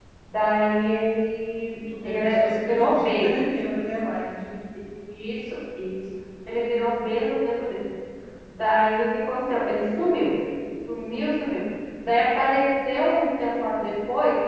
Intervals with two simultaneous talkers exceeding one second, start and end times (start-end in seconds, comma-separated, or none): 2.0-3.3